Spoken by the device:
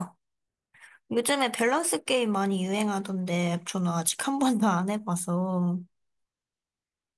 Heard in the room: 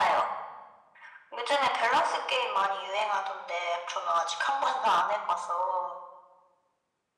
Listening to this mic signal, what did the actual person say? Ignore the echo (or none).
none